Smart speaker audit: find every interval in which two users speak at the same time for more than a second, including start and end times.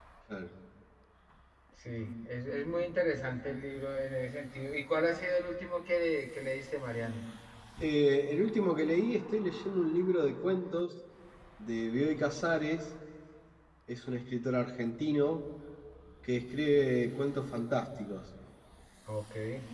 none

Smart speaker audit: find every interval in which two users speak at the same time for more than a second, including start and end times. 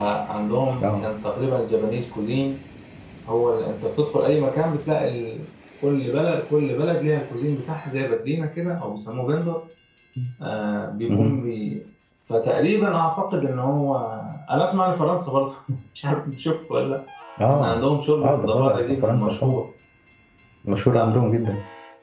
18.2-19.6

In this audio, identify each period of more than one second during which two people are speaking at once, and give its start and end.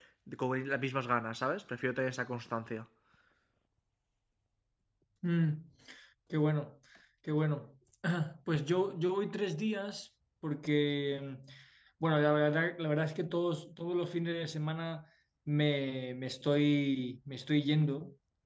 none

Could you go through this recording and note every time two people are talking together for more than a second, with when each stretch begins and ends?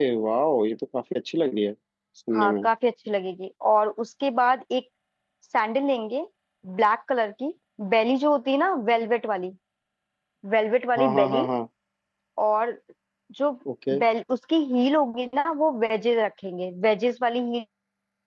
none

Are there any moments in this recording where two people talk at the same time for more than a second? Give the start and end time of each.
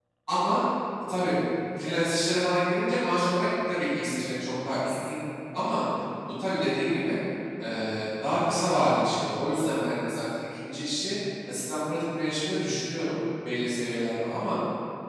none

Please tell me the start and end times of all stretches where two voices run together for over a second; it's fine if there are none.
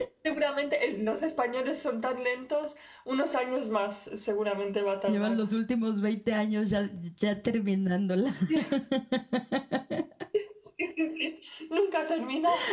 none

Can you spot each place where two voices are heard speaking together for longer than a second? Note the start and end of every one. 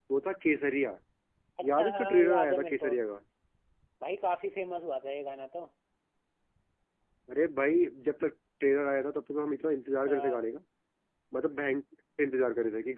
1.6-2.9

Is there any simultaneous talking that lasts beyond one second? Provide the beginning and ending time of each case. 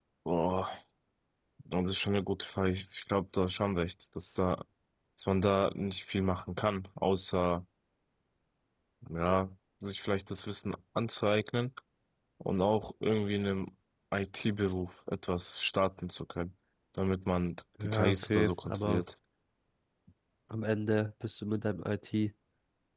17.8-19.0

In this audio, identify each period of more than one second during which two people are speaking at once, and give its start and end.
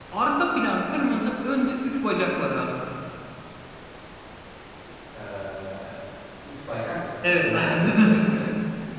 7.2-8.4

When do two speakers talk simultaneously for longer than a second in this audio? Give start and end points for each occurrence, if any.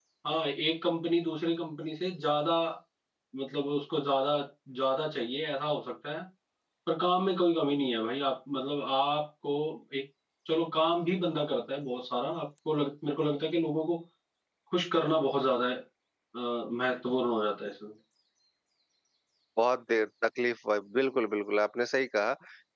none

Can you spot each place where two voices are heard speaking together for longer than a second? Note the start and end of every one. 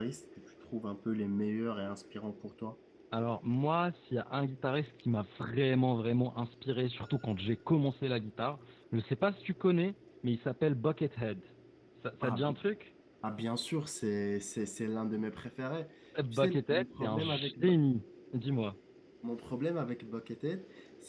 16.3-17.7

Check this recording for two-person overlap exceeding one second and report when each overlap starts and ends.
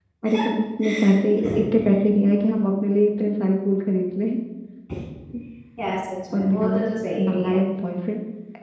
none

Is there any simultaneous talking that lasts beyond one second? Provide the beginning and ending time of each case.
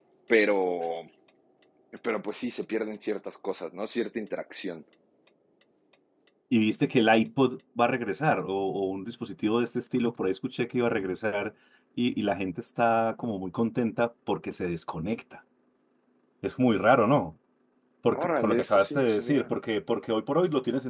18.1-19.5

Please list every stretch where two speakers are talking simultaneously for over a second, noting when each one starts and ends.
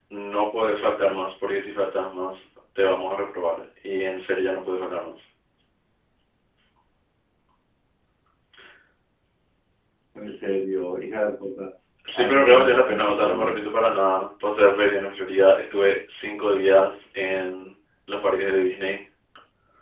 12.1-13.9

